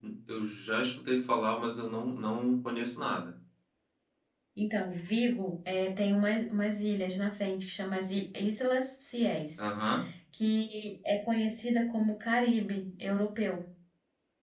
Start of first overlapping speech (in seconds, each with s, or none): none